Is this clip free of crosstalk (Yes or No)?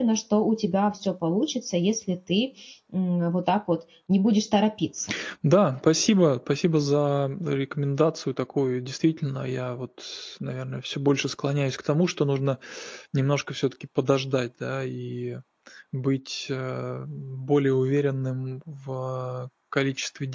Yes